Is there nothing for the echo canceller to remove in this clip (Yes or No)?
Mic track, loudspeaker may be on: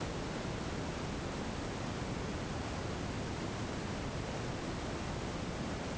Yes